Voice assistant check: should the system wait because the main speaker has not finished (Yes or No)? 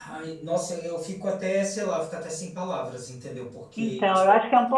No